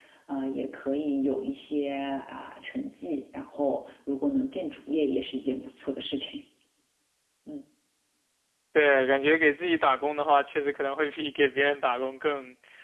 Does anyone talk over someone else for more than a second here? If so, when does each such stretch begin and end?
none

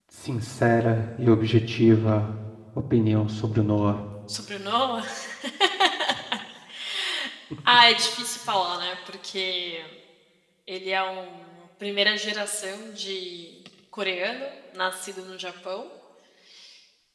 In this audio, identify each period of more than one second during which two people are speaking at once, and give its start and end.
none

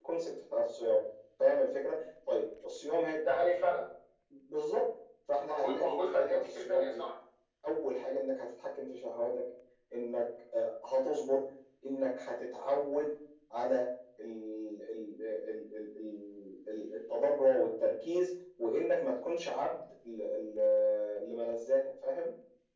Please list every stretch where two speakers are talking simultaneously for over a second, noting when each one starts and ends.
5.5-7.0

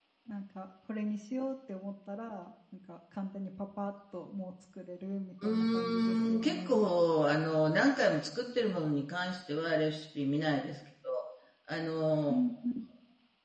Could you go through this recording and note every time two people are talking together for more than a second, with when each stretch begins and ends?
5.4-6.7

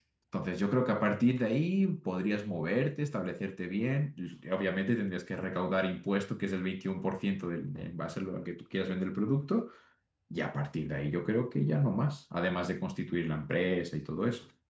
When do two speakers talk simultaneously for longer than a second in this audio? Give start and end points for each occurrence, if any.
none

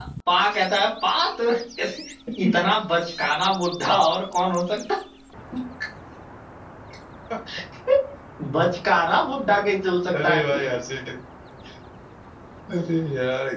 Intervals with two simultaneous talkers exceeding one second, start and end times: none

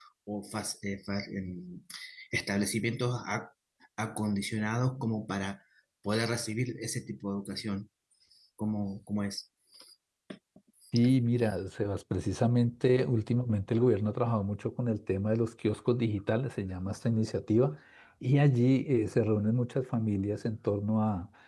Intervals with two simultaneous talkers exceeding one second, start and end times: none

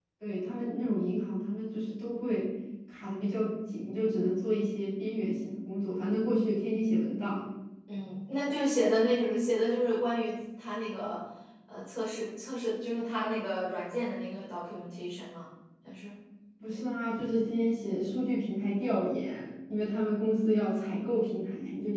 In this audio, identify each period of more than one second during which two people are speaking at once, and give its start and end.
none

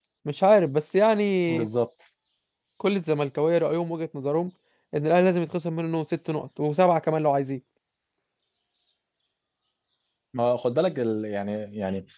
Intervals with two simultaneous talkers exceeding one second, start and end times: none

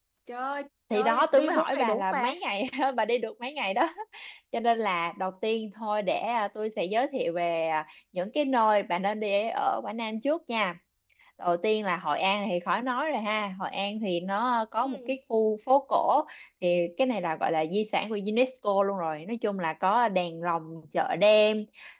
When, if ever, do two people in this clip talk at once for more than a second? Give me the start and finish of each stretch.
0.9-2.3

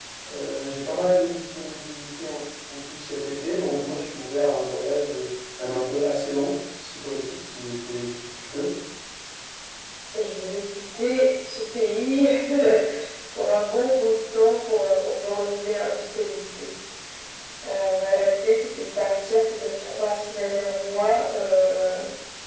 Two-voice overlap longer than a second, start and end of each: none

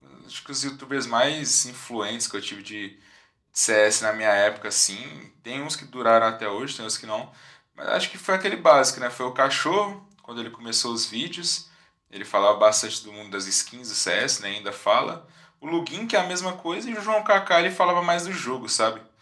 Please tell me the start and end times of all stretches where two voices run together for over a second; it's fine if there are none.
none

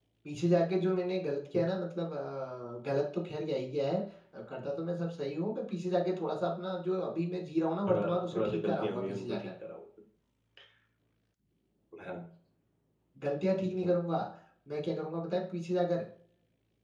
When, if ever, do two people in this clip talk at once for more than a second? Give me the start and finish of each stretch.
7.9-9.5

